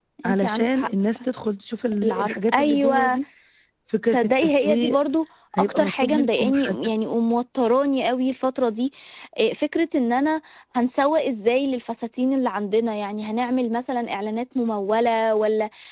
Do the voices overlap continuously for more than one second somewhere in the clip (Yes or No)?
Yes